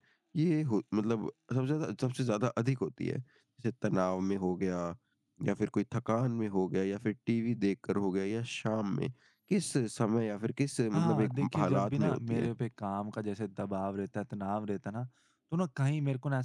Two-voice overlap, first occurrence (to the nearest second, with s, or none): 11 s